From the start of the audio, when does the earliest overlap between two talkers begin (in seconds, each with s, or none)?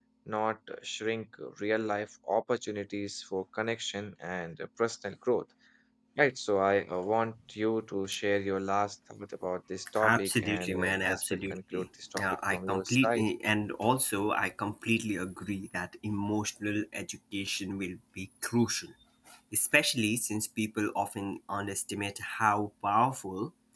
10.0 s